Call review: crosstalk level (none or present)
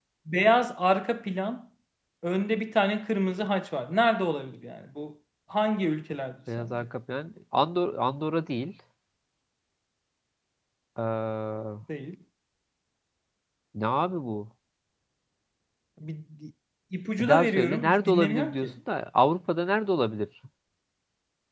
present